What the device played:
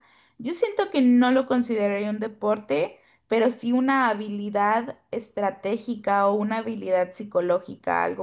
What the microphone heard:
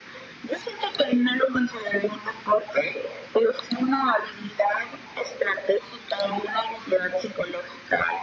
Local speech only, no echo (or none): none